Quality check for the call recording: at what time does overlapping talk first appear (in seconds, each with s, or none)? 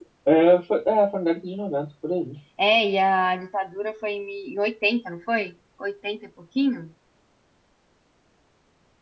none